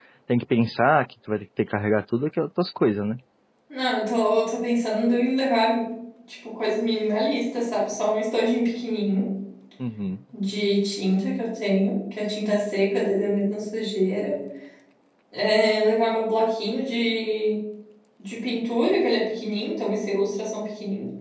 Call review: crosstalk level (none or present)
none